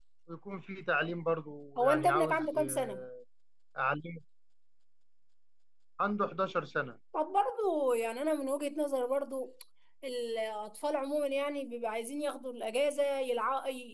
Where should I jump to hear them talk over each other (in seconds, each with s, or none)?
1.8 s